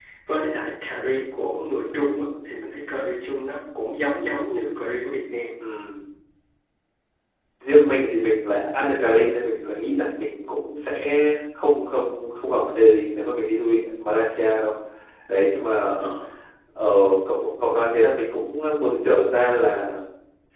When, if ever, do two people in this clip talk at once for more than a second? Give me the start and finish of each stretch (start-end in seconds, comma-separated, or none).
none